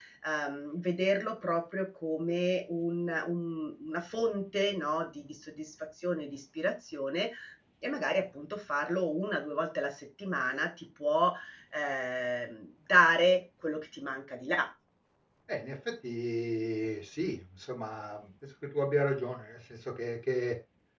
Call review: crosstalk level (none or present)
none